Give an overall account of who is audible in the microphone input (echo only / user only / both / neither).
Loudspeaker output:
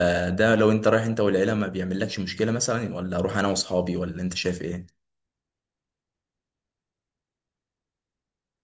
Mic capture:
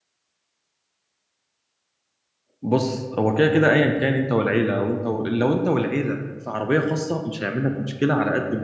user only